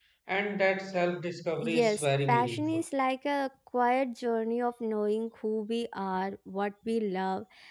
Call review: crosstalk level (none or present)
present